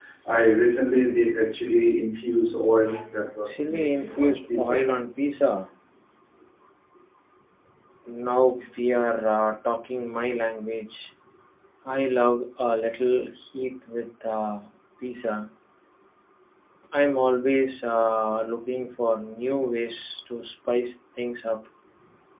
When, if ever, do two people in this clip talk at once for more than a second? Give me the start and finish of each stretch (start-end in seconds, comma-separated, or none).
3.5-4.8